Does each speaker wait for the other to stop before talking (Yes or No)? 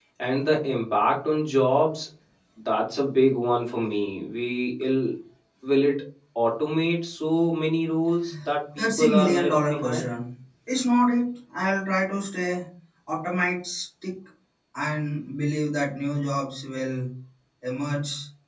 No